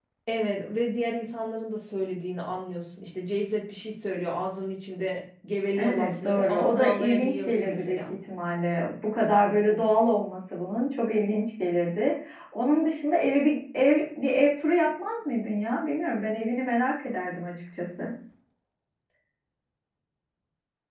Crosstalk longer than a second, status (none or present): present